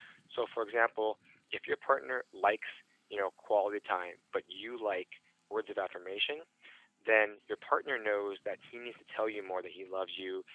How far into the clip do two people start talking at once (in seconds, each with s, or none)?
none